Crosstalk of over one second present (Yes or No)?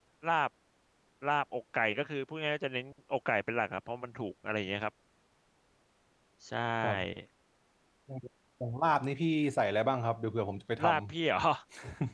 No